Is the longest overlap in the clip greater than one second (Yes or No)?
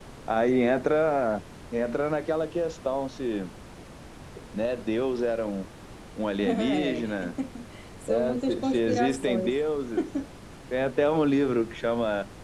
Yes